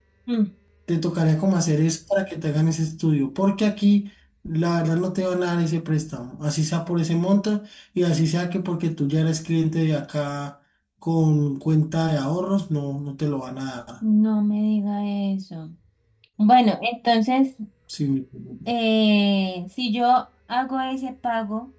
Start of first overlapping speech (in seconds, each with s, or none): none